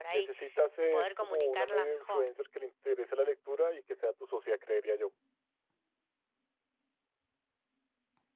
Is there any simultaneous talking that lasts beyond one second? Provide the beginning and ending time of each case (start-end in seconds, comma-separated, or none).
0.9-2.3